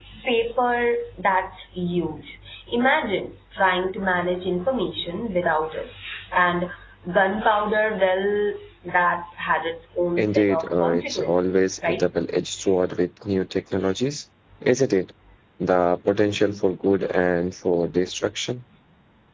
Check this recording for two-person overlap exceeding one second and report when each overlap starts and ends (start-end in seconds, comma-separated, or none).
10.2-12.0